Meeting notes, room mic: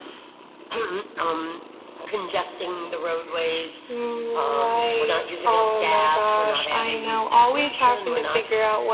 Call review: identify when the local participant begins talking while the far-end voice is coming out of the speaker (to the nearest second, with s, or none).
none